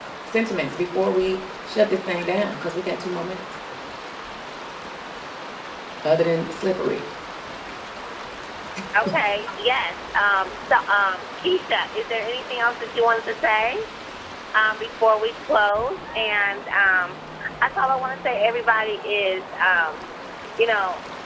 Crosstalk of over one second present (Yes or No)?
No